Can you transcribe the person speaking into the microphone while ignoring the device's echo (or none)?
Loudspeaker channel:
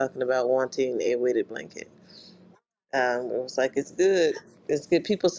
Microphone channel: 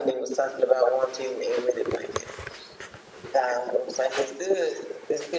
none